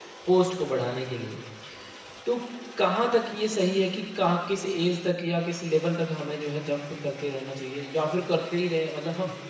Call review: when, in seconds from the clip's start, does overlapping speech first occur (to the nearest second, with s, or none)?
none